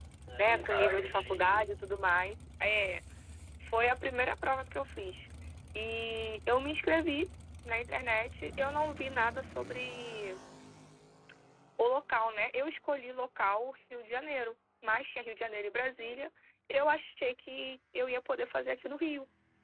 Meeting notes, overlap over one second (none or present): present